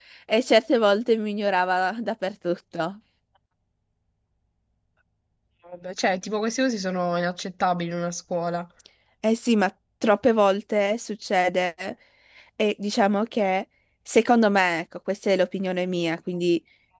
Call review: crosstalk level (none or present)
none